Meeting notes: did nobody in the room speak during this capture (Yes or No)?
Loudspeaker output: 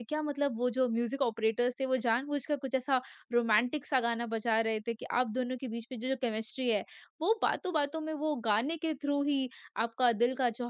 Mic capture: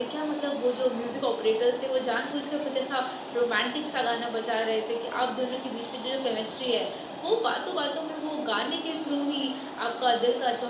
Yes